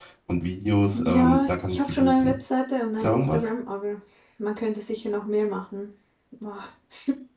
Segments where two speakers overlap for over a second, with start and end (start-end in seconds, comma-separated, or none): 0.9-2.3